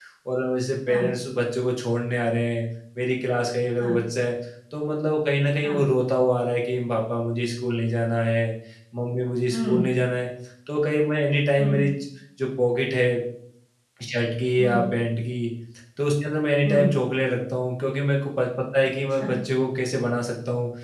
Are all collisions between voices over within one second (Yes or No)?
Yes